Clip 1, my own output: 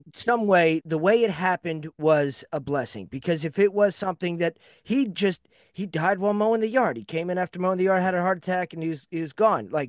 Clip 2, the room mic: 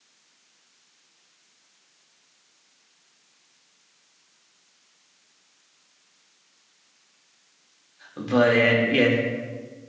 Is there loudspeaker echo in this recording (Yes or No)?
No